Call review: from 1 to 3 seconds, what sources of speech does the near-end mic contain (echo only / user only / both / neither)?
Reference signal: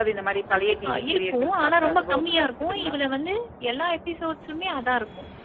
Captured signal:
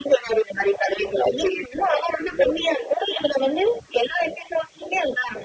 echo only